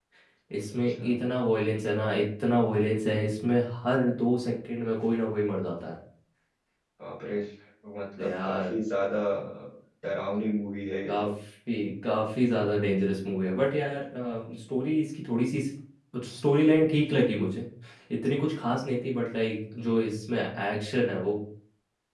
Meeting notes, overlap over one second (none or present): none